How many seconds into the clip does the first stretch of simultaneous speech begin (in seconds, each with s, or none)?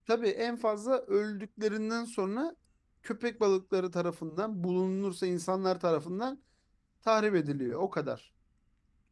none